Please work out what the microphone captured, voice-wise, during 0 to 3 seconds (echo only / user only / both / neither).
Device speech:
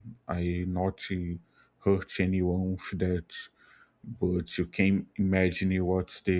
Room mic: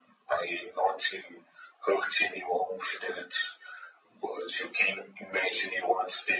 echo only